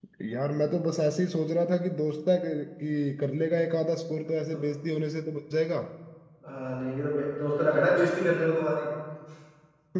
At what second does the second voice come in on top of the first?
none

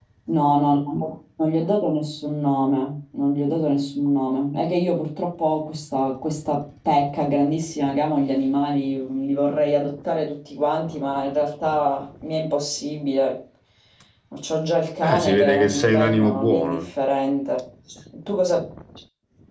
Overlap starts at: 15.0 s

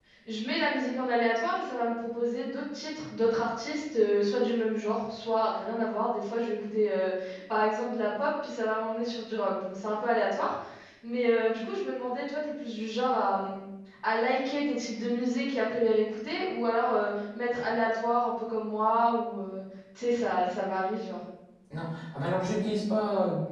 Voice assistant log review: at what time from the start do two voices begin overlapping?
none

